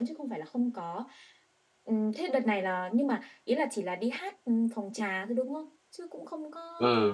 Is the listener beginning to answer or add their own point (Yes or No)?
Yes